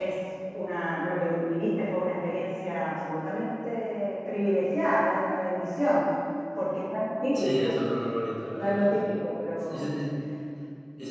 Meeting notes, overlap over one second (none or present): none